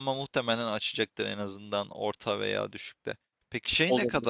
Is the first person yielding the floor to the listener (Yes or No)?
No